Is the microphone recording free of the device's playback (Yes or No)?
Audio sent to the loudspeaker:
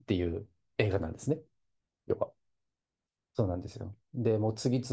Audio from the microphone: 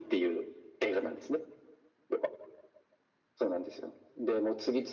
No